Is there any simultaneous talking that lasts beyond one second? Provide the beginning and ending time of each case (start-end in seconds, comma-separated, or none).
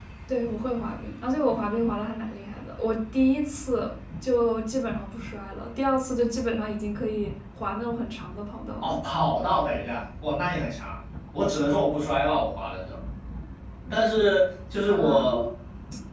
none